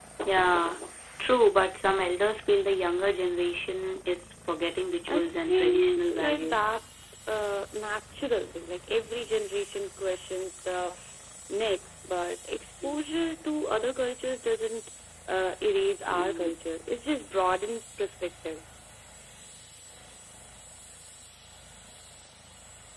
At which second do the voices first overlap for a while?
5 s

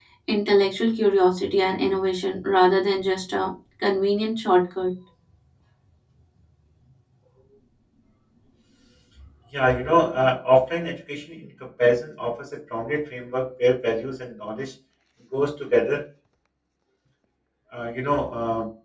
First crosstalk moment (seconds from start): none

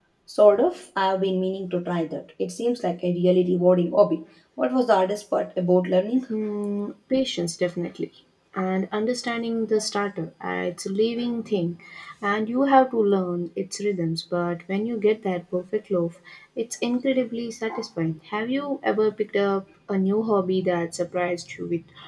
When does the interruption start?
none

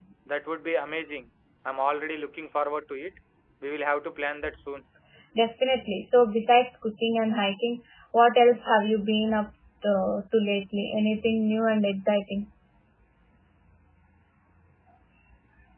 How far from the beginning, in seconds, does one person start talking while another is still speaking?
none

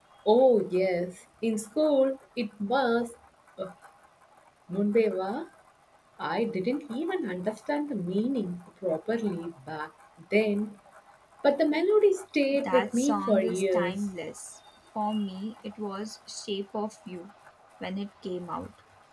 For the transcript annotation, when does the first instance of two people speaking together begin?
13 s

